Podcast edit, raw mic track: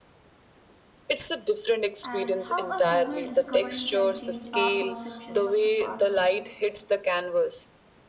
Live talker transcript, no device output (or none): and how a single discovery can change our perceptions of the past.